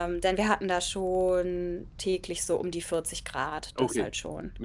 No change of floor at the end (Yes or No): No